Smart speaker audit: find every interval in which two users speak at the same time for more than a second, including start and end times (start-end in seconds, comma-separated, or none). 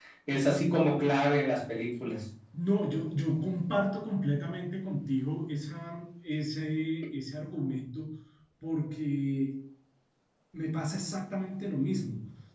none